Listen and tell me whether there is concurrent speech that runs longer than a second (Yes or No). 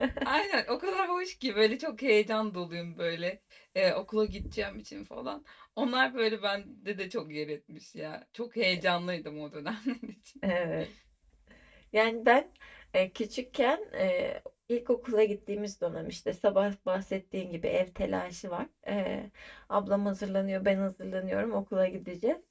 No